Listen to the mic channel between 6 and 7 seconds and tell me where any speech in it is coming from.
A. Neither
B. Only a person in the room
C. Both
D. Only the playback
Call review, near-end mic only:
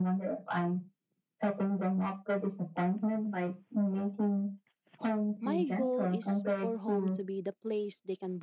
C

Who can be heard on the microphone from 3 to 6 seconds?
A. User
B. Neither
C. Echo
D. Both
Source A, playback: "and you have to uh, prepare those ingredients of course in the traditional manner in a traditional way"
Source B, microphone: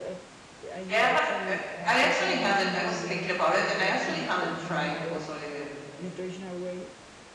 D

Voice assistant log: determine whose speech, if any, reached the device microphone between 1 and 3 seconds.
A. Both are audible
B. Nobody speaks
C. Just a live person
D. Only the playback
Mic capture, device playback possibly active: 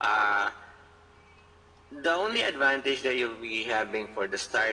D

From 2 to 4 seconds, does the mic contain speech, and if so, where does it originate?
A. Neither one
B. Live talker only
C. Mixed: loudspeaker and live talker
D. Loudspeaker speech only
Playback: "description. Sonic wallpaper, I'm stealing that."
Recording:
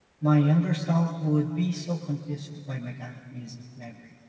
B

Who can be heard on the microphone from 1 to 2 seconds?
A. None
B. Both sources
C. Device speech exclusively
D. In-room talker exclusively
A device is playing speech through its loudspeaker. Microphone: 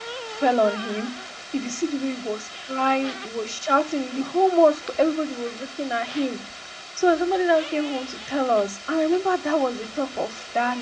C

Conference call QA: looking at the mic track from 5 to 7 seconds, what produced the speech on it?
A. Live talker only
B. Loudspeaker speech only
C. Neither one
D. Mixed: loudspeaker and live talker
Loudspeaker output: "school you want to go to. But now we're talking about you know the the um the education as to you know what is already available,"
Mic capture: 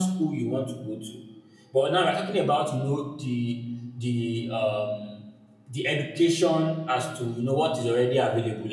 B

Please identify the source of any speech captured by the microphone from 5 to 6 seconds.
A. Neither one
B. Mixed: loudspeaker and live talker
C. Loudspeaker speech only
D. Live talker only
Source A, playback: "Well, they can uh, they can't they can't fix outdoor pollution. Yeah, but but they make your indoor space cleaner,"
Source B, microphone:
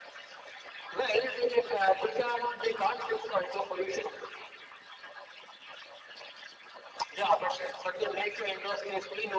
A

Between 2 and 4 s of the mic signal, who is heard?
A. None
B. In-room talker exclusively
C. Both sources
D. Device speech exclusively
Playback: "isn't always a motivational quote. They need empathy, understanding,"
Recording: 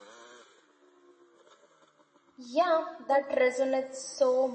B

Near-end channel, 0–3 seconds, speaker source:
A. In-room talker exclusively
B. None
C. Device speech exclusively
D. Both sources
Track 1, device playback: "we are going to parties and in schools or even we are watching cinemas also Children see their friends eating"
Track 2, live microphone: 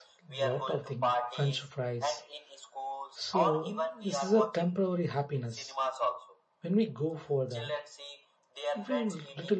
D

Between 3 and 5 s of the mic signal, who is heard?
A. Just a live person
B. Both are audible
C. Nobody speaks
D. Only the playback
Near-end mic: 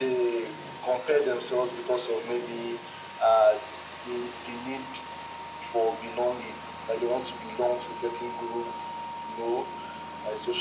D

